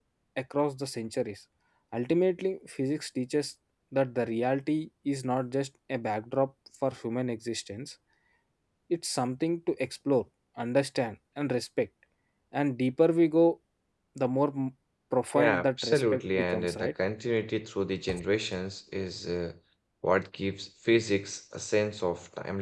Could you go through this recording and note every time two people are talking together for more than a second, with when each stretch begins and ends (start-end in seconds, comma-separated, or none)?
15.3-16.9